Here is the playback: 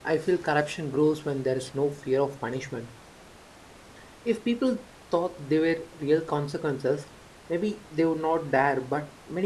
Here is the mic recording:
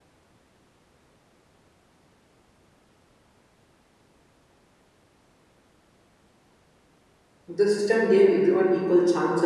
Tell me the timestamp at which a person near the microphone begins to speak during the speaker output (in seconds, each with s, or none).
7.5 s